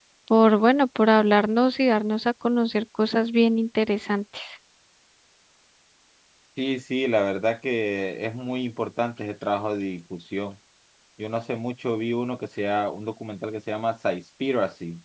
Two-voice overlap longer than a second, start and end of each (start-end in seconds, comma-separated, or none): none